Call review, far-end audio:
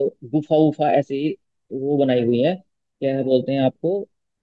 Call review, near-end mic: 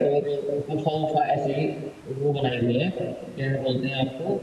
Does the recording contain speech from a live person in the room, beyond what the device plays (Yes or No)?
No